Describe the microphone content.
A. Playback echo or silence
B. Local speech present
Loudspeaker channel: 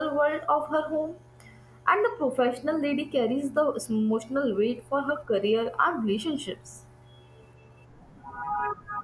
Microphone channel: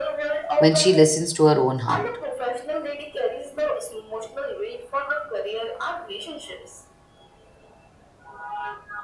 B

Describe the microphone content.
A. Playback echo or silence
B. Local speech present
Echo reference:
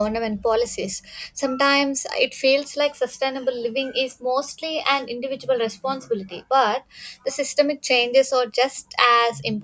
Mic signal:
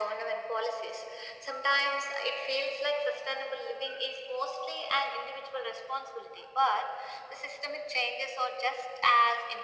A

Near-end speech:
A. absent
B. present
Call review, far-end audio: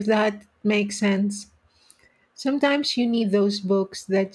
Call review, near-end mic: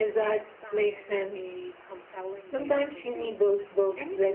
B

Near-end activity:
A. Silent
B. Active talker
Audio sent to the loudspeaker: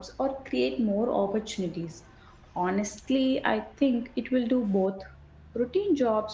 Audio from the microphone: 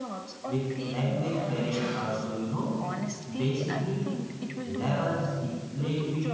B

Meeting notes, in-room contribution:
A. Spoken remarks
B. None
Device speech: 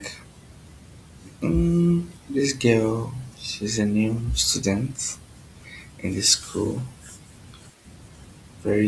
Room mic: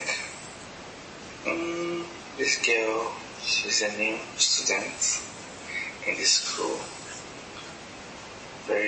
B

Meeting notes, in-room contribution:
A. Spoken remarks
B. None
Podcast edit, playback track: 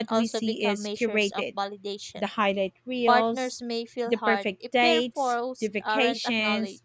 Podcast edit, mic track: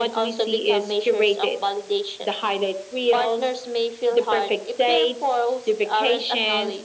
B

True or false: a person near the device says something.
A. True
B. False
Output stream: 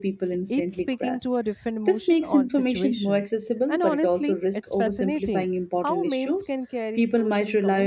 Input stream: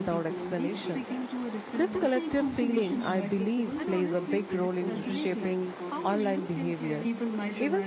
A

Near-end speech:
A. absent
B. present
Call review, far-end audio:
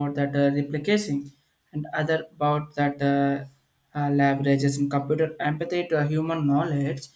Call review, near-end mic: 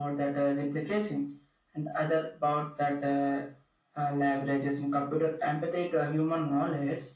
A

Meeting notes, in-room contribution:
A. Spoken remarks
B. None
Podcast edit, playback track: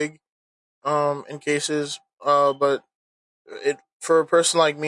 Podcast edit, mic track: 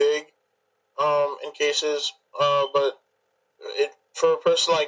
B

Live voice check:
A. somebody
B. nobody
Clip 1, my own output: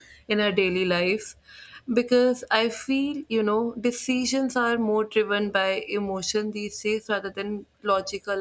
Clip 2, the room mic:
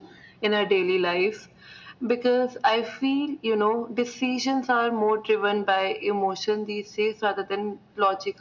B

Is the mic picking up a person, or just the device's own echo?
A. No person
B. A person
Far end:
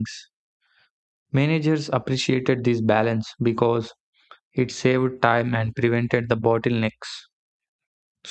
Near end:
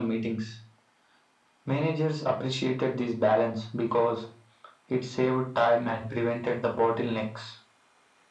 A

